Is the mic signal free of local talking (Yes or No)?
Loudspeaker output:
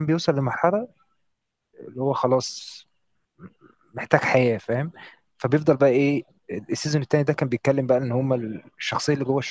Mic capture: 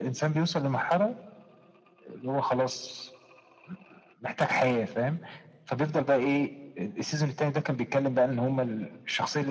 Yes